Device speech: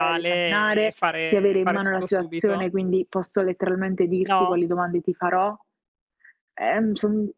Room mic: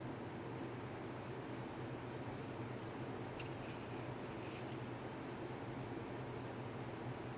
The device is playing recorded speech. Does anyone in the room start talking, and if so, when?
none

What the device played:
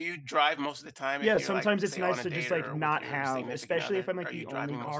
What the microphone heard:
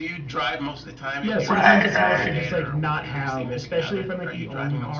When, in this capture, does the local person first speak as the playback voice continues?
1 s

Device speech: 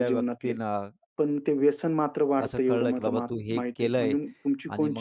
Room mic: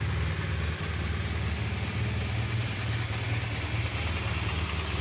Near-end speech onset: none

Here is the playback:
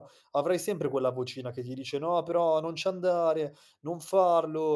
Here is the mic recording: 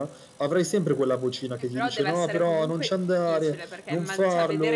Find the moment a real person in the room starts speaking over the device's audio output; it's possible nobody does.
2 s

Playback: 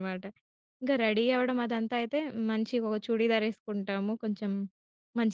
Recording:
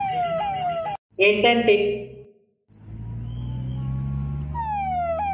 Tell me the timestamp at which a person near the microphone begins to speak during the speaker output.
1 s

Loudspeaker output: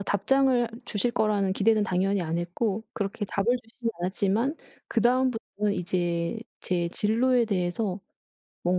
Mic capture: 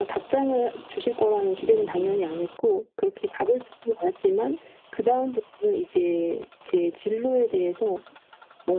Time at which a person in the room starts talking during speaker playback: 2 s

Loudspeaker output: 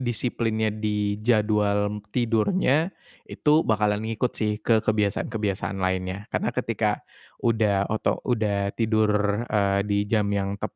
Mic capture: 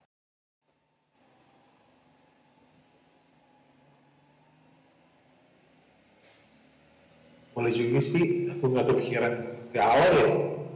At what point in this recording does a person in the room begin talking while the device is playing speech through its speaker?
8 s

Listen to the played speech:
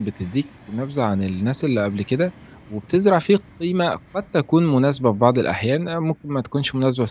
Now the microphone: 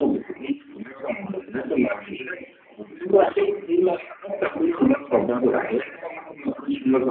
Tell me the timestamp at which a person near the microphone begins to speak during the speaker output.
none

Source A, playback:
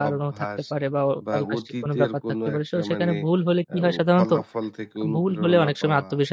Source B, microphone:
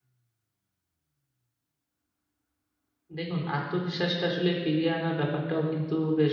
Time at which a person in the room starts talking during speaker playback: 3 s

